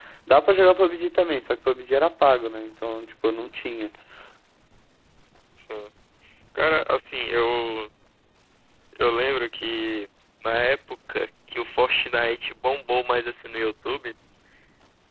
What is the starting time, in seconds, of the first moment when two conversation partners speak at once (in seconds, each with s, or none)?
none